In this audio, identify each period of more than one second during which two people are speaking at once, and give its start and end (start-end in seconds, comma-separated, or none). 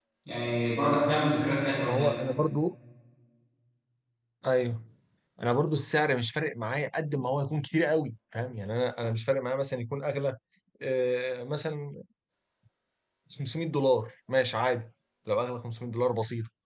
none